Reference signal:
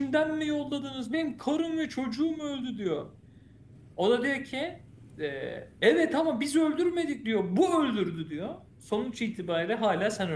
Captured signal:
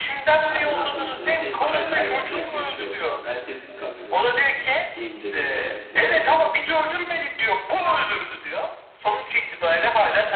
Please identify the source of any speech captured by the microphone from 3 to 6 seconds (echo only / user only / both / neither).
both